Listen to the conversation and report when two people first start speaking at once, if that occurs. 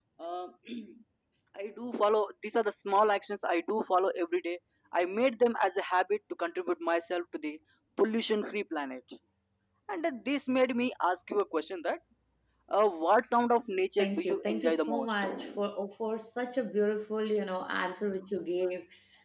14 s

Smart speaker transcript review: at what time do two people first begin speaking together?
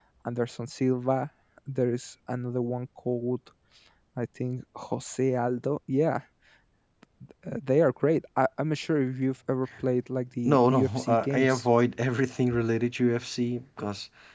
10 s

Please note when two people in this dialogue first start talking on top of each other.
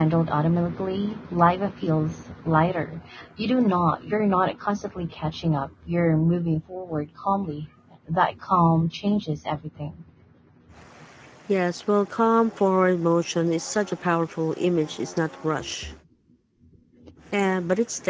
none

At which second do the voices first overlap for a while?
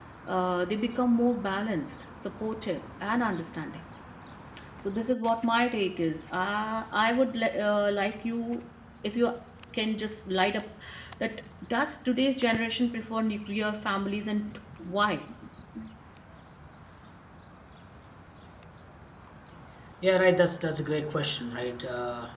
none

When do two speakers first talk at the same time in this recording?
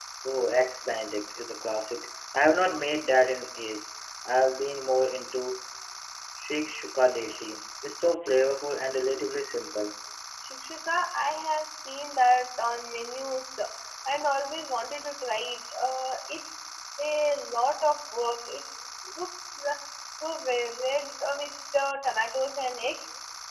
none

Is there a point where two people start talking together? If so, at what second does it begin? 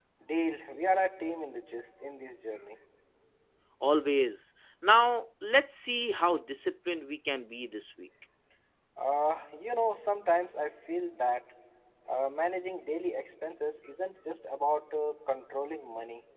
none

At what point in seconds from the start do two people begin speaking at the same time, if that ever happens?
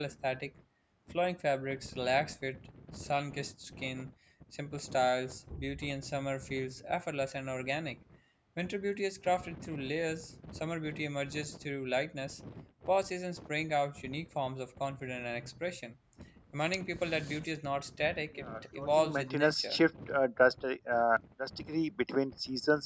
18 s

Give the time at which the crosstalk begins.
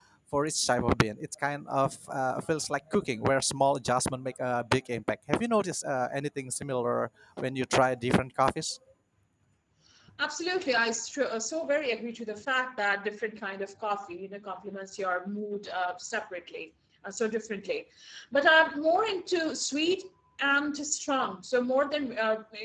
none

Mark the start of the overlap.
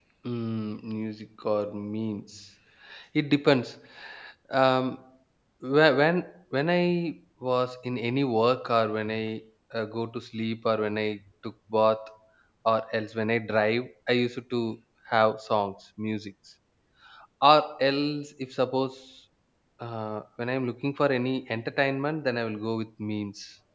none

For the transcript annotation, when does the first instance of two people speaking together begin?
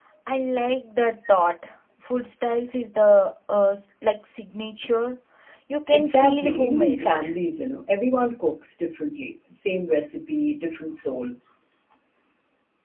6 s

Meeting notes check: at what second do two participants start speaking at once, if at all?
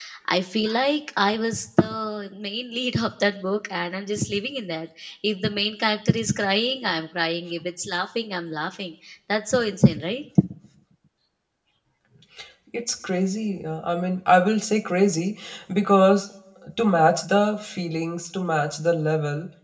none

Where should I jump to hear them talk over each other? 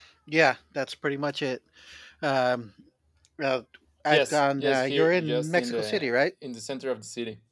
4 s

